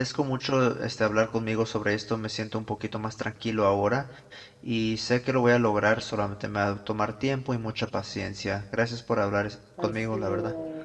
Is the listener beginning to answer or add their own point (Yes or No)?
Yes